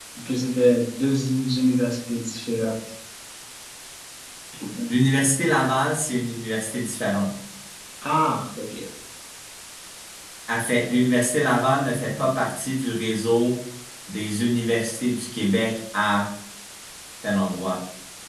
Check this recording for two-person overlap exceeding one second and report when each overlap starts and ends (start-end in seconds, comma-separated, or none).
none